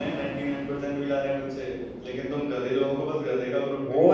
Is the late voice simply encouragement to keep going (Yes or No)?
No